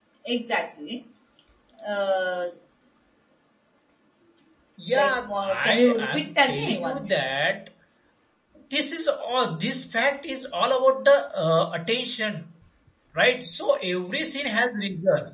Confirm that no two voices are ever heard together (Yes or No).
No